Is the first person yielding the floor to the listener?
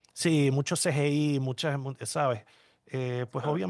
No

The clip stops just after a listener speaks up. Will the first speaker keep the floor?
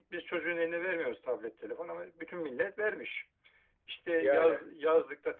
Yes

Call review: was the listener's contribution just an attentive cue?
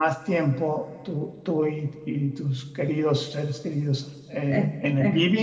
Yes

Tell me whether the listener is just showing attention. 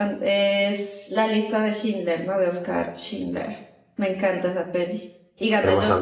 No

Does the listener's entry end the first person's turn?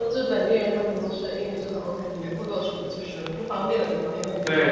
Yes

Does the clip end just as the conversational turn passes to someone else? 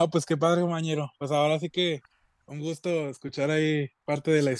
No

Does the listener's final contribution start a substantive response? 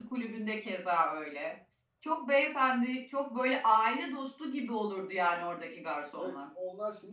Yes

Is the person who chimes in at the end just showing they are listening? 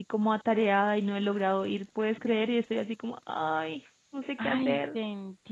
No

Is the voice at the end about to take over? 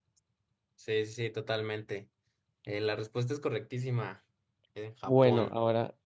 Yes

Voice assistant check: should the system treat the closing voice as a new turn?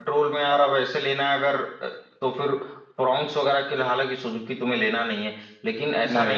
No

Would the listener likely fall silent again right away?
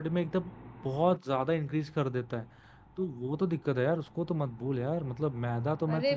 Yes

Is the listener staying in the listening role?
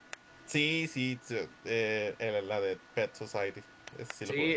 No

